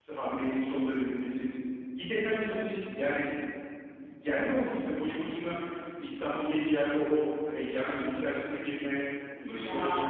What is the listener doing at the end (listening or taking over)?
taking over